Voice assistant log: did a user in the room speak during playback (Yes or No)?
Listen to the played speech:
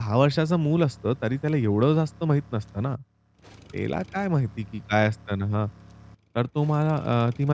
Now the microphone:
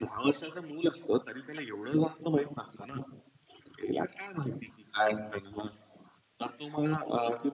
No